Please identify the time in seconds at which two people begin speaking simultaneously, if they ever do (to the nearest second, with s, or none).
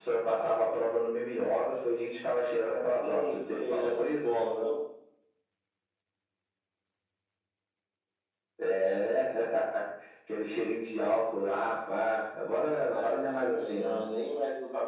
3 s